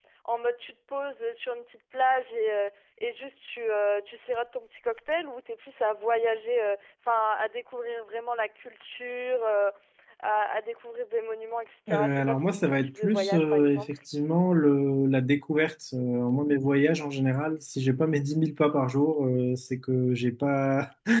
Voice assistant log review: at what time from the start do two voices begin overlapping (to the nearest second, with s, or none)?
12 s